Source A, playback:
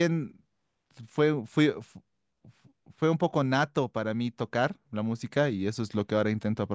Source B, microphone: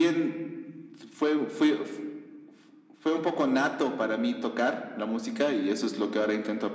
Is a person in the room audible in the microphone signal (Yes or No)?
No